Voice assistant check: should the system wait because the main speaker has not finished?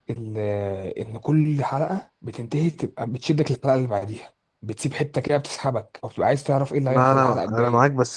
No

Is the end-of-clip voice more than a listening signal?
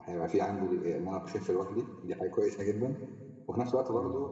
No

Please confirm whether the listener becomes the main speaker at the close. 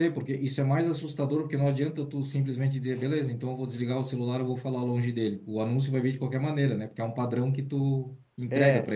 Yes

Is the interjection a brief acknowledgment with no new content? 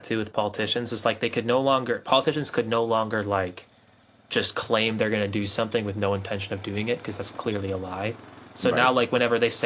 Yes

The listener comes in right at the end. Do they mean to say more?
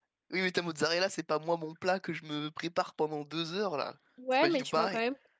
Yes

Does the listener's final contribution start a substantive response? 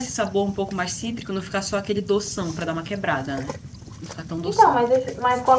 Yes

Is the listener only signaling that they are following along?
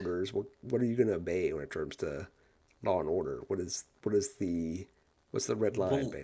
No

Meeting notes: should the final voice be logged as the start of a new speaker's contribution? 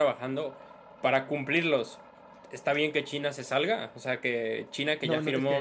Yes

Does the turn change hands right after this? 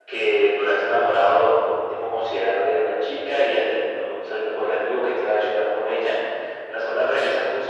No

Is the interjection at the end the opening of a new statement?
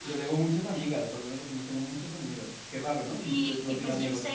Yes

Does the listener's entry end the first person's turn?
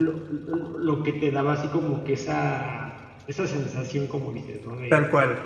No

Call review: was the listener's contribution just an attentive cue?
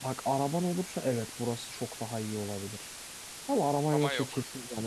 Yes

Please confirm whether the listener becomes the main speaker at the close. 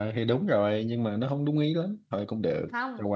Yes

